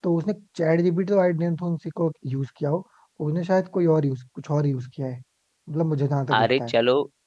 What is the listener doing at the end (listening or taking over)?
taking over